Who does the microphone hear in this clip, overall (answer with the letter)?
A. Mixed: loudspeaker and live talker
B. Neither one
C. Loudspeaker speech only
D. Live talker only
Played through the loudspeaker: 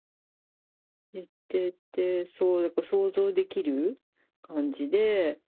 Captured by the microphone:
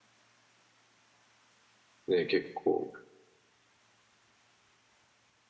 D